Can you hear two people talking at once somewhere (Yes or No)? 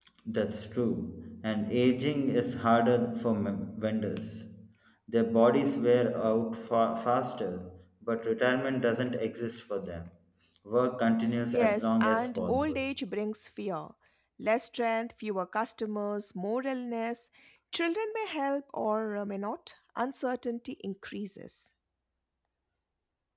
Yes